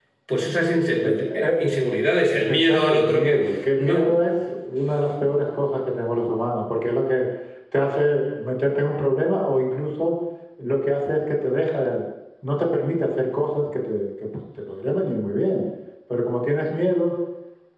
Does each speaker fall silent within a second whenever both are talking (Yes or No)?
No